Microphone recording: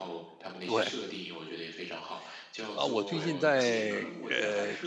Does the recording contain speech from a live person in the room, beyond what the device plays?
Yes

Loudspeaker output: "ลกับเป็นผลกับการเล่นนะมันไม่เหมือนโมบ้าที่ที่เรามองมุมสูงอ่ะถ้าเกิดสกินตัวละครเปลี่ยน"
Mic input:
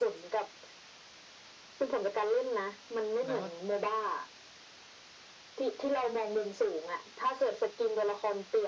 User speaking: Yes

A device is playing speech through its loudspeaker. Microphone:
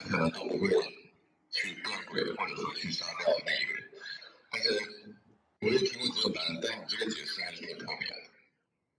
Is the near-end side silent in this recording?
Yes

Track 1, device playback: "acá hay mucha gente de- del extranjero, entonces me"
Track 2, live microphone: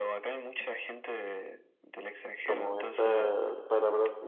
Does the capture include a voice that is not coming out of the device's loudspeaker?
Yes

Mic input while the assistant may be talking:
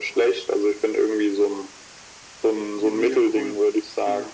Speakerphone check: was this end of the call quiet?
No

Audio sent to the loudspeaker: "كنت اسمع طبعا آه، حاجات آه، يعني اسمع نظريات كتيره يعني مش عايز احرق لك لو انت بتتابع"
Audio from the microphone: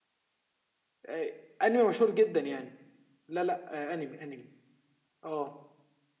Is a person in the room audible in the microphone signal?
Yes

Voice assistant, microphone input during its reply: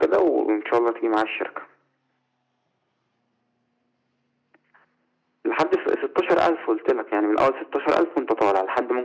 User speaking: No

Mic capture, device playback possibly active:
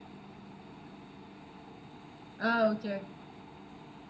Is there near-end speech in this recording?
Yes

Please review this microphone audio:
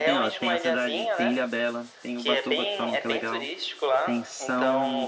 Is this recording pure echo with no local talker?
No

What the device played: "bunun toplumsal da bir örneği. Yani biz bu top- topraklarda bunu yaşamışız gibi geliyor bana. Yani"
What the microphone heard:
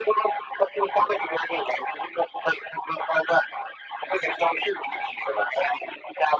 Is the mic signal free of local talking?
Yes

